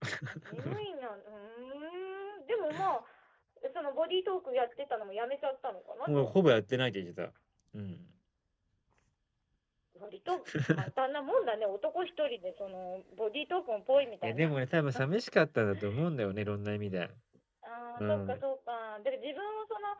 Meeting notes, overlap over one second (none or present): none